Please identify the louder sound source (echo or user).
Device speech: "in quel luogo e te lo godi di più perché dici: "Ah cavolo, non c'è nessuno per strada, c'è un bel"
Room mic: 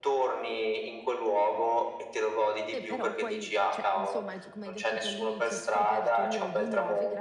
echo